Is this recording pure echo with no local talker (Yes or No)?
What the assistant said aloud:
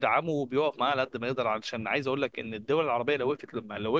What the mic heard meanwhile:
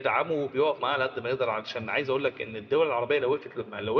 Yes